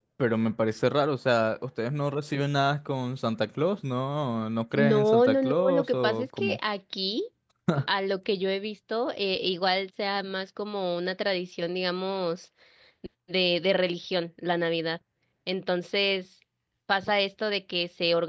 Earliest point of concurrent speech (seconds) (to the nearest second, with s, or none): 5 s